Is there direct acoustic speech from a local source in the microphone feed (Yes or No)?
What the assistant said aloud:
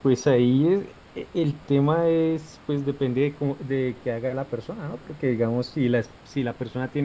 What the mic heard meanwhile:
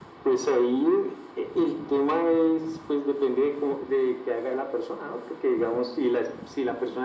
No